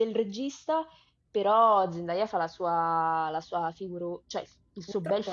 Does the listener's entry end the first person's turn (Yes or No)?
Yes